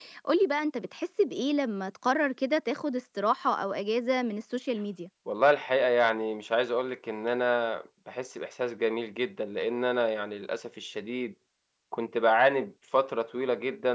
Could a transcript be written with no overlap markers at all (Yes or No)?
Yes